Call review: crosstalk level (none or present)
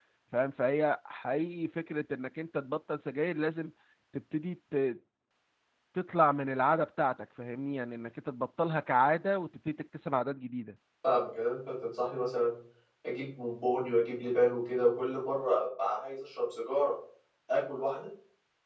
none